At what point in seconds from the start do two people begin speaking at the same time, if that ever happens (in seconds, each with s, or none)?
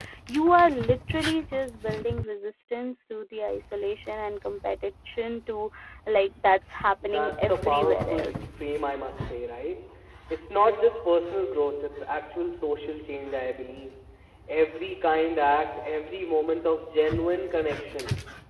7.0 s